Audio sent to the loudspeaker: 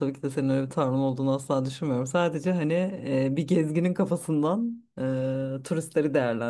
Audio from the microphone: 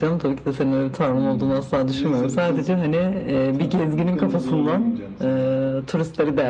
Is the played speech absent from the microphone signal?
No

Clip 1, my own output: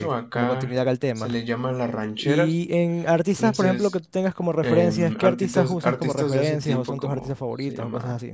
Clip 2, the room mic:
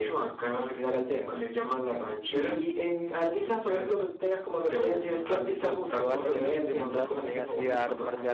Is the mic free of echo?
No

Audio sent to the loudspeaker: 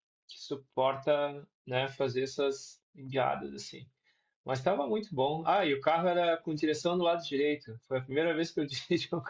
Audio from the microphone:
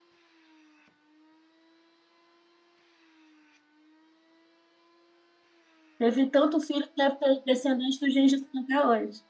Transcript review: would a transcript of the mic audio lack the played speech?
Yes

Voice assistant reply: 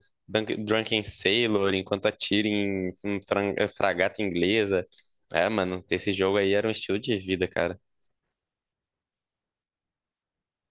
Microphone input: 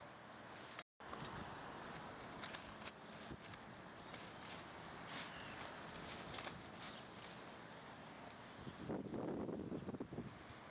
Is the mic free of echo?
Yes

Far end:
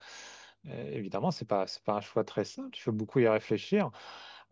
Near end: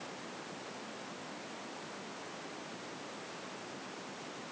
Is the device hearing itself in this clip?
No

